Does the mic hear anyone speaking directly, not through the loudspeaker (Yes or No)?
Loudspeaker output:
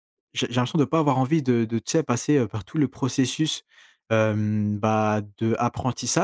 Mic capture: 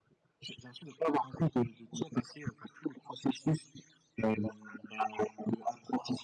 No